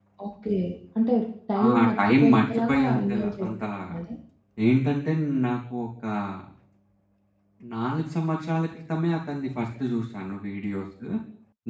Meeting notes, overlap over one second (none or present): present